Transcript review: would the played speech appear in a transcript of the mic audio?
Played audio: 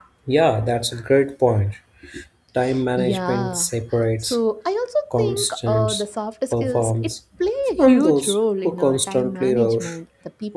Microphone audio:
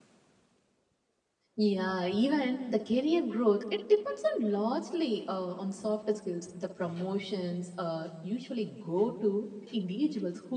No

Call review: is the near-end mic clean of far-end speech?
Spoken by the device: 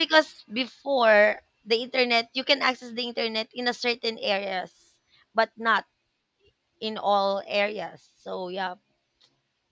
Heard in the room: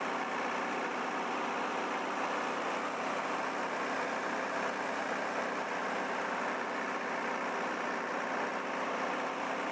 Yes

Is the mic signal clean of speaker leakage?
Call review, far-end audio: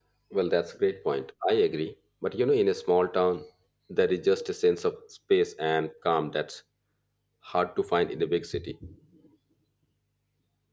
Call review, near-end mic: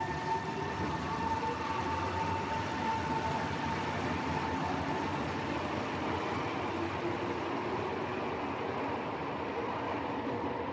Yes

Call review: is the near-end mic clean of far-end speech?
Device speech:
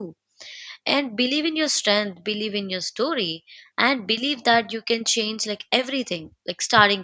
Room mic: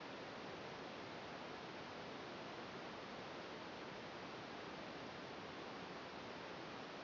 Yes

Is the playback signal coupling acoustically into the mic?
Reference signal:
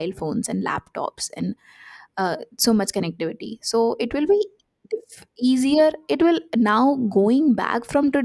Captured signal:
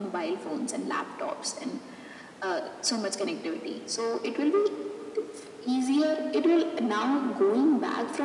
Yes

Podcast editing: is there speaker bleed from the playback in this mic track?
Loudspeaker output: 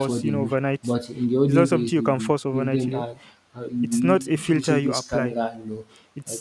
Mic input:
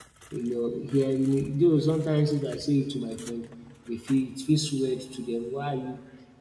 No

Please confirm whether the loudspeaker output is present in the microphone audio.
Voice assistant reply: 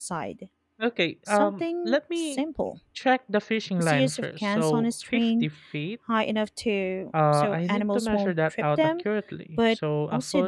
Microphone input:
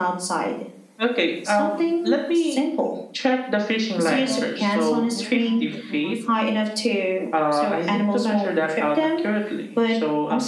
Yes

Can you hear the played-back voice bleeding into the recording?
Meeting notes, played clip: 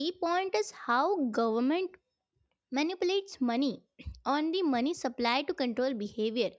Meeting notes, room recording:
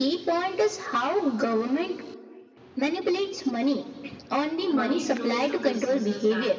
Yes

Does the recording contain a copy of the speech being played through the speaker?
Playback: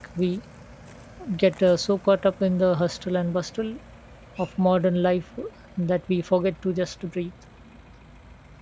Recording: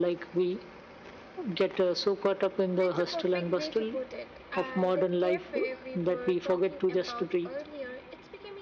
Yes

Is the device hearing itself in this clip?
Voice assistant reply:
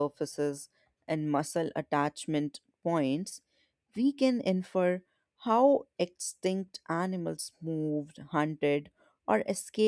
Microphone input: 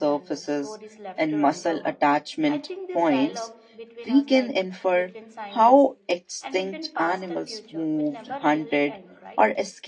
Yes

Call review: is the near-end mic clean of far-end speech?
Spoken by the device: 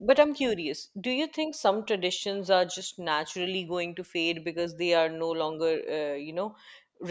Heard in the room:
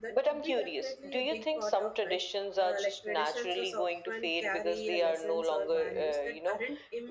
No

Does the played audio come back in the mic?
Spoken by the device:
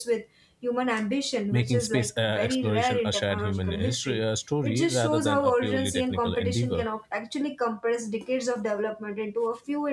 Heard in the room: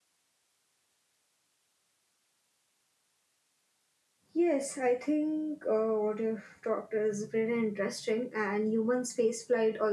No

